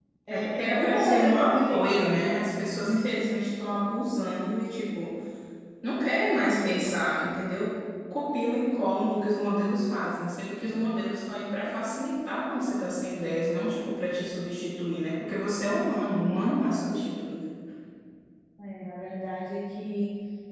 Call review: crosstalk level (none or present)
present